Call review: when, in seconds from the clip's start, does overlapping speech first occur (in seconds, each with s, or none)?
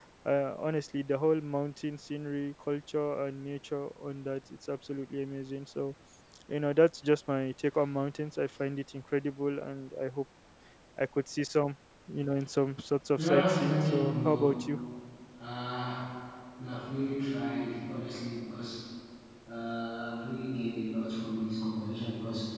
13.2 s